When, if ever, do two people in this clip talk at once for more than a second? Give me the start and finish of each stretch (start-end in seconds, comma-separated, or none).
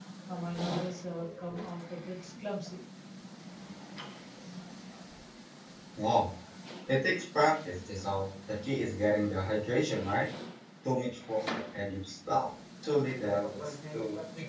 none